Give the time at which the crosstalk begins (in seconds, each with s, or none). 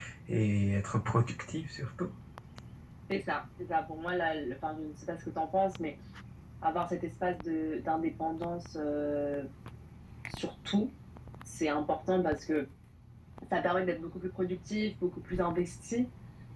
none